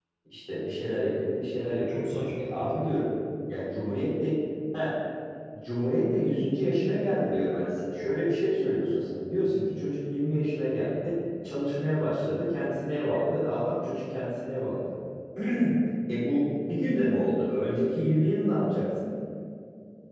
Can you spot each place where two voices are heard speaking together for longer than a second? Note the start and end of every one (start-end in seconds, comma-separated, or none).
1.5-3.1